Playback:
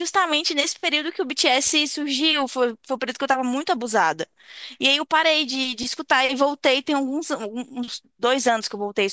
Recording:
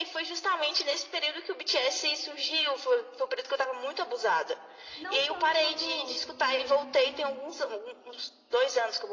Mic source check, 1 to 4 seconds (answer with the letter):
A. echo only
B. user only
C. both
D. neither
A